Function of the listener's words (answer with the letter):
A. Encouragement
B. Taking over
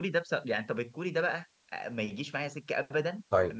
A